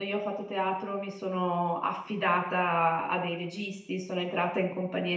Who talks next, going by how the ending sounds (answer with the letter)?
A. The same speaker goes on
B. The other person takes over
A